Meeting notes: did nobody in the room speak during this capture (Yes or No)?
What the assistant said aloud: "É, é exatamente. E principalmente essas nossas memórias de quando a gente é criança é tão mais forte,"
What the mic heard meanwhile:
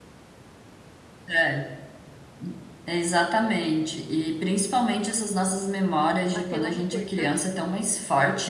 No